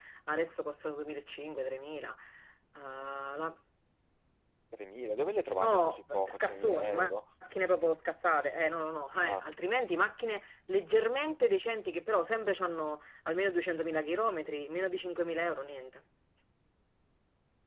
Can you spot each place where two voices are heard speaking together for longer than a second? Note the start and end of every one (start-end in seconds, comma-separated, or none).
5.6-7.1